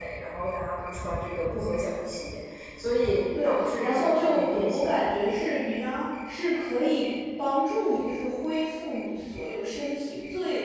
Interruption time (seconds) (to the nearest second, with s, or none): 3 s